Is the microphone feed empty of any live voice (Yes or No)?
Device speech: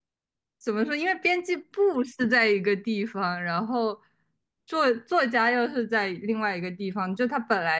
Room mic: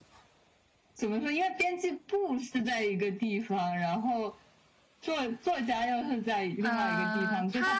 No